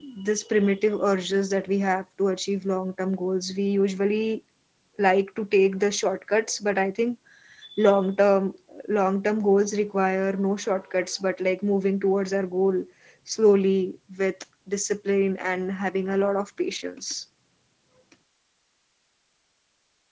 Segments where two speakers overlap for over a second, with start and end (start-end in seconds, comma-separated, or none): none